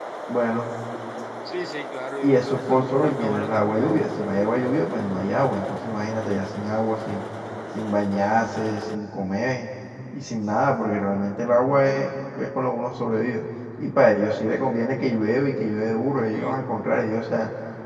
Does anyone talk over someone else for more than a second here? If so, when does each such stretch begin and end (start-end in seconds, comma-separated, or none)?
2.2-3.8